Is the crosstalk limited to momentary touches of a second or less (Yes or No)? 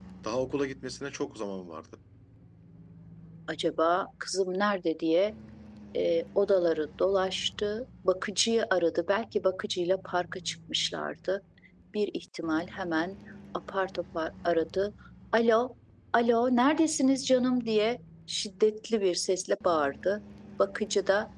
Yes